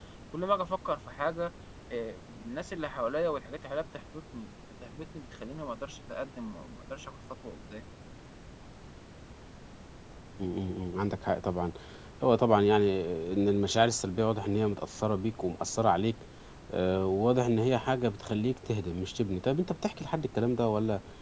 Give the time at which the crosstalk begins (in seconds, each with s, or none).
none